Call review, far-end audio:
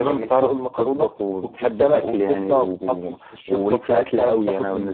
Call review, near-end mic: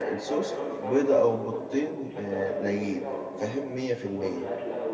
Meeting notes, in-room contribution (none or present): present